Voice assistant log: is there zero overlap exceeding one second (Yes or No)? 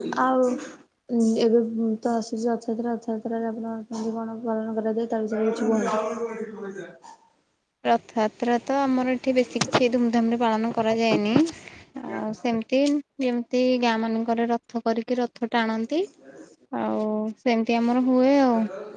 Yes